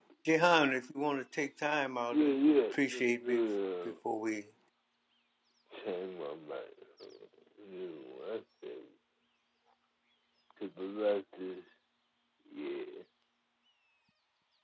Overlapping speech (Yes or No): Yes